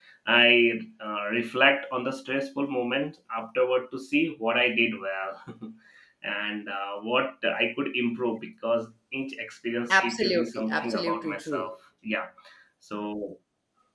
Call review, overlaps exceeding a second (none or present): present